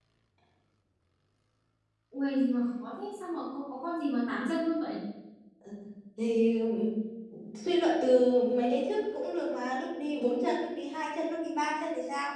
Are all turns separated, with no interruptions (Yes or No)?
Yes